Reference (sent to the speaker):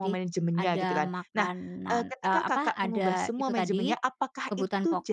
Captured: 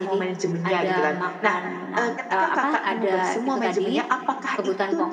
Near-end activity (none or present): none